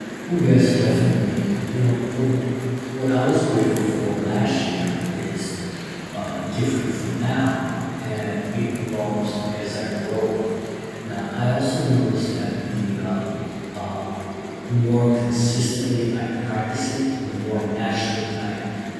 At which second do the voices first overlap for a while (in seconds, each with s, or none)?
none